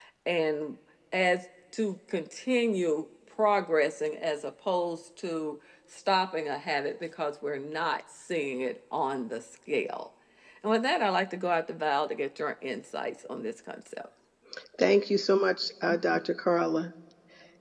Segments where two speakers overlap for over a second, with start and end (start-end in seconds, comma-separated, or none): none